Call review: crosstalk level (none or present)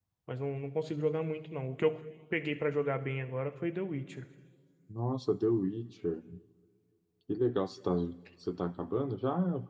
none